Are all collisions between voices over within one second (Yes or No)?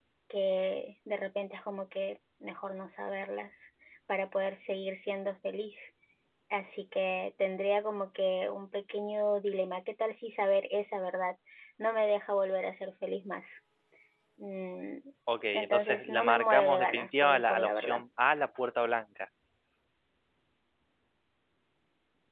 No